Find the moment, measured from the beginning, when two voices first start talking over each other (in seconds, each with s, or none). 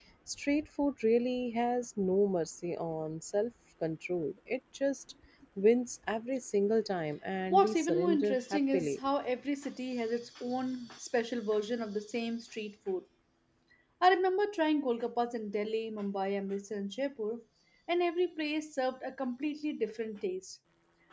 7.5 s